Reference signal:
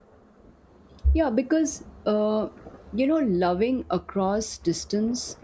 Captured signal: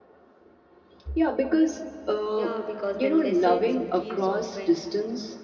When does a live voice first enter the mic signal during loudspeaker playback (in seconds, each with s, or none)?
2.3 s